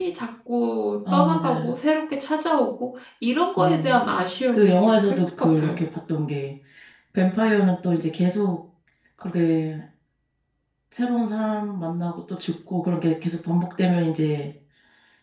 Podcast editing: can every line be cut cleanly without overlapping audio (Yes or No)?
No